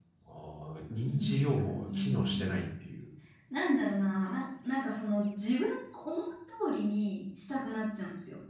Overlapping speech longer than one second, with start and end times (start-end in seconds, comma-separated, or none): 1.1-2.6